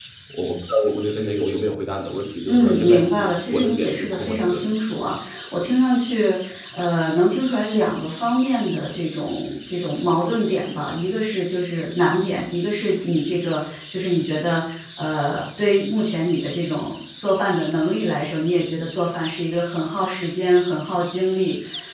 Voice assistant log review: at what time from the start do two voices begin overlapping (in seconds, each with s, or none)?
2.5 s